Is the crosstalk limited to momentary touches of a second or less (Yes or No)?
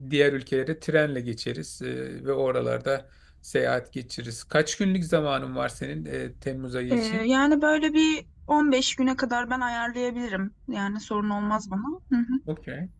Yes